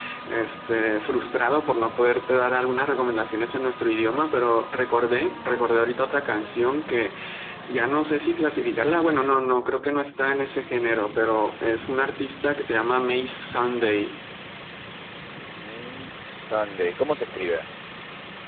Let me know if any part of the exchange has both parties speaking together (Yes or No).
No